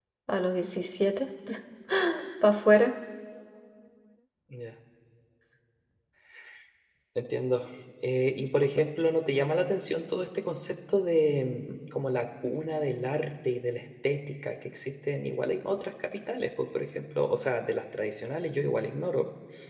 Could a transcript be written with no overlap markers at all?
Yes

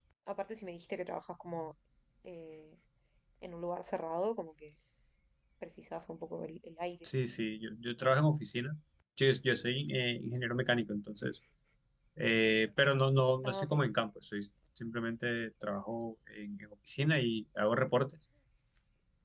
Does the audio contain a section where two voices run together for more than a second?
No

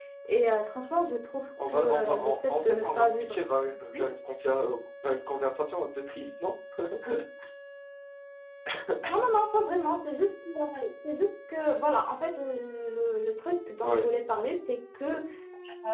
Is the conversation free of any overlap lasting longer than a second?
No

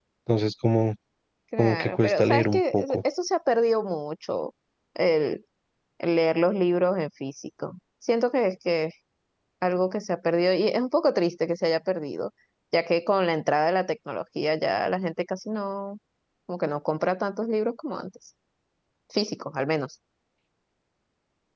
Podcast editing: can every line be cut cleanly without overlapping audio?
No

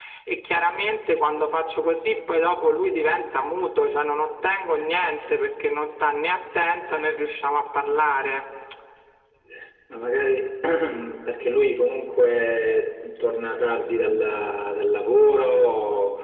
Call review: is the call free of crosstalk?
Yes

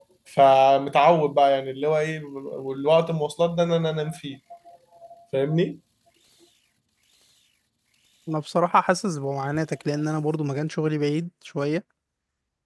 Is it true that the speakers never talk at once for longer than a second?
Yes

